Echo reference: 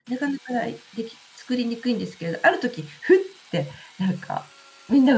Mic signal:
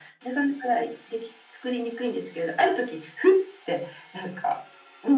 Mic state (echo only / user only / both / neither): echo only